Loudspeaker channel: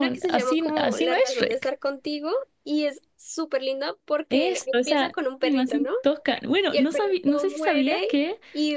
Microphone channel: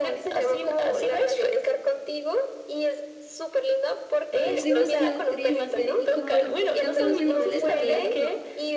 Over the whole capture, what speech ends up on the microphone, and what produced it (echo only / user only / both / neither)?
both